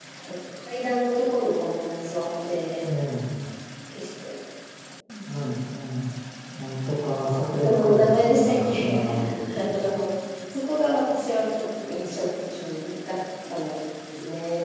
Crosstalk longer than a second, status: present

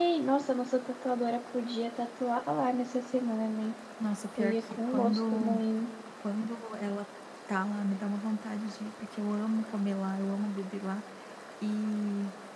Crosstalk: present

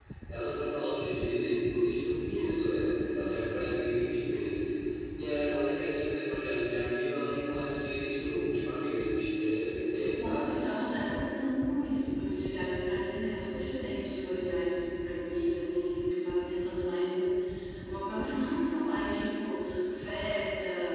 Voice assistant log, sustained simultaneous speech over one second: none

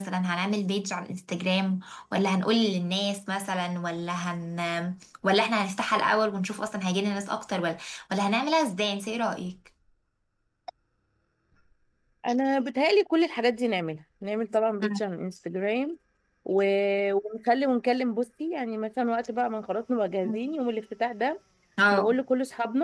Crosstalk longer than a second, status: none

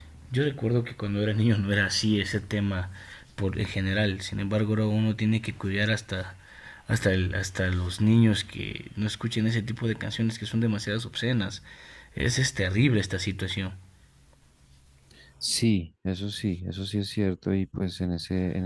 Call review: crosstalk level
none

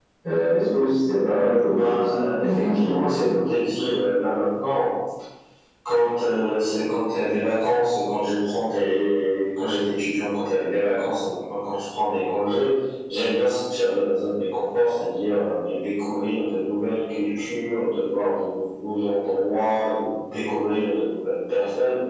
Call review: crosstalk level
present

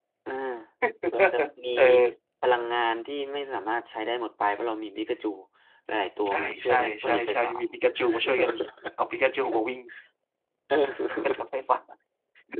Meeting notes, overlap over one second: present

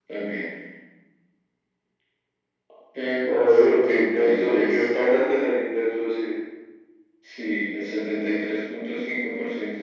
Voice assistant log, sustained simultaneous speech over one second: present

